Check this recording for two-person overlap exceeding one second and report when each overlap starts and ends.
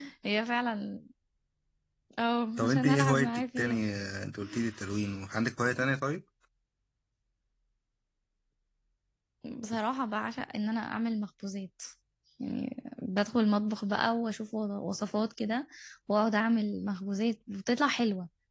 2.6-3.8

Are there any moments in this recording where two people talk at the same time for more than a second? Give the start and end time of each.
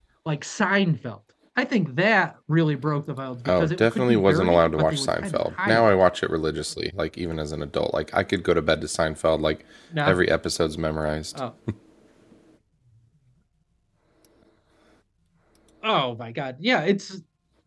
3.5-5.9

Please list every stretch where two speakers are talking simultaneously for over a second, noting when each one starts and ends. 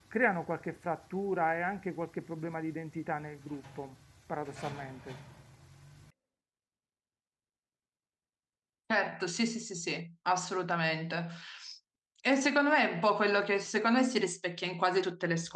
none

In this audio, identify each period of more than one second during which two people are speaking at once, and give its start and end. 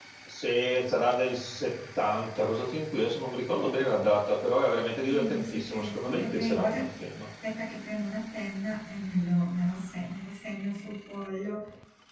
5.1-6.8

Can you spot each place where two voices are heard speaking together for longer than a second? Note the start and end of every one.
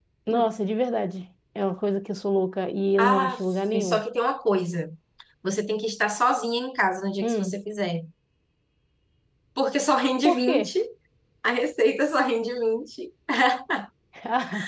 none

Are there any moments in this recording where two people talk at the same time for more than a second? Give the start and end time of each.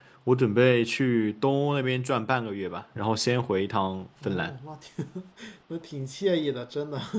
none

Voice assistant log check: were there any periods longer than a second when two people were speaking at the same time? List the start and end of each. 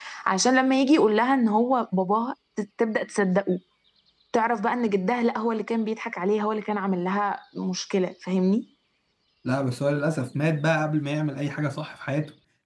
none

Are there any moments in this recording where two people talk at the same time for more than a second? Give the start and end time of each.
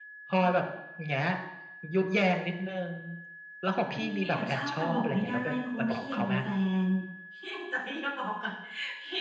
4.0-6.3

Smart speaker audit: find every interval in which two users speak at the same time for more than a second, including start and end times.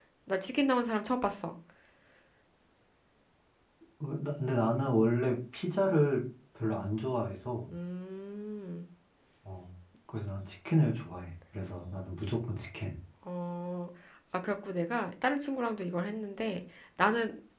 none

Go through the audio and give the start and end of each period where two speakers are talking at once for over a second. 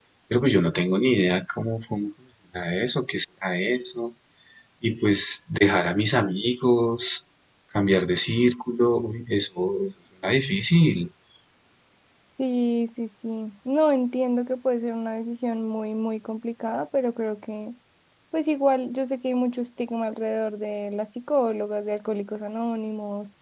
none

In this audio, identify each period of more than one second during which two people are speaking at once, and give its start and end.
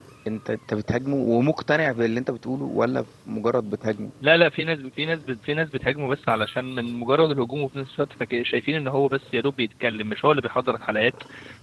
none

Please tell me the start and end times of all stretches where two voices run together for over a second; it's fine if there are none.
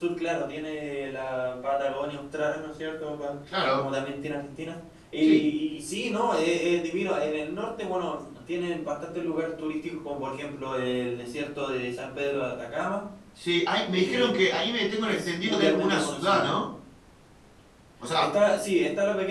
15.0-16.5

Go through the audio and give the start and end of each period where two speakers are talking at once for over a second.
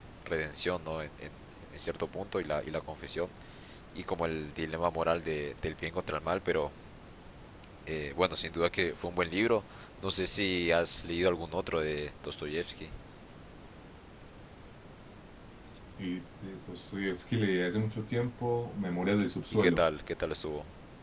none

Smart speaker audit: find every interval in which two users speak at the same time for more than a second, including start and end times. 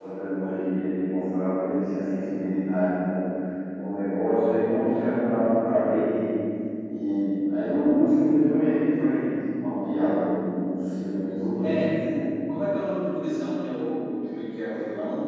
none

